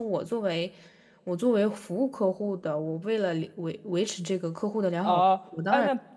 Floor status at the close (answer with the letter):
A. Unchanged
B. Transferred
B